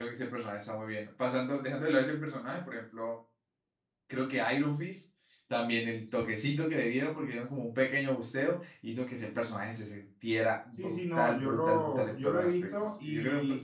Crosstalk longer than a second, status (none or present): present